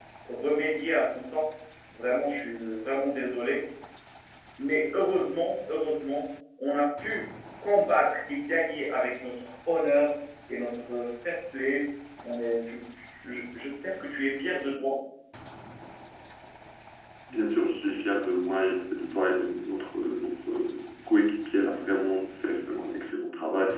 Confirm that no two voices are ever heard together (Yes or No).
Yes